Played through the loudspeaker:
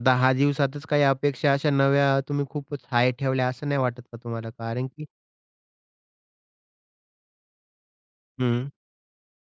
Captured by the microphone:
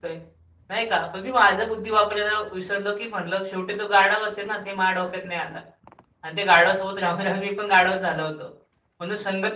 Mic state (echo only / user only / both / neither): user only